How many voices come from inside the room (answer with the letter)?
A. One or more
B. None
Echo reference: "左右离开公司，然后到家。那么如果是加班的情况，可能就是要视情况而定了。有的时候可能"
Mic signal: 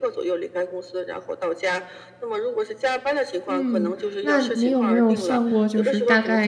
A